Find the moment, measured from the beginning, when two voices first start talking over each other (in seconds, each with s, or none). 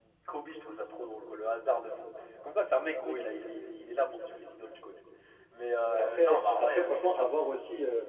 5.9 s